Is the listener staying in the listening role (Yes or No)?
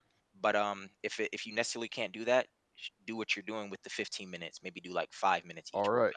No